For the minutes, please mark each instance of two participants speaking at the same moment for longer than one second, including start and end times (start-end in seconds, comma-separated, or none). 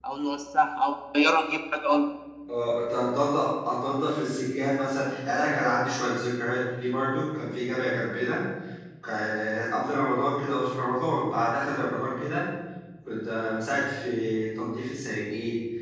none